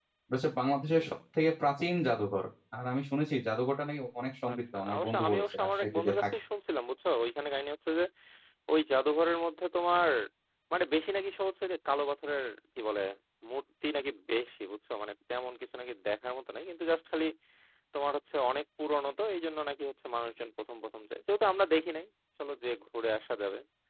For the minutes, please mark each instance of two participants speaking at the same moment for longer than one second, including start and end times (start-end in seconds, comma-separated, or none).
4.5-6.2